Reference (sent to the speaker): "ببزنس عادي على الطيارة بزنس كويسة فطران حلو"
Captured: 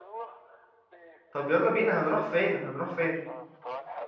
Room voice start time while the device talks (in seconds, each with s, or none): 1.3 s